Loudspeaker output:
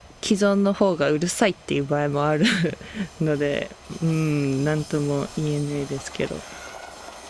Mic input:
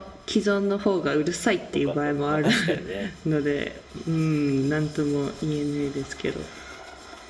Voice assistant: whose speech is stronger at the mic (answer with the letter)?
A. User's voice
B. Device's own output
B